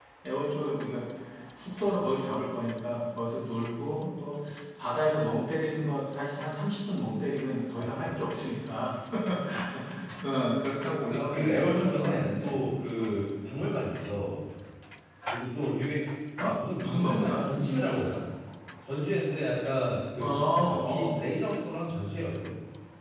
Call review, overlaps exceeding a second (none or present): present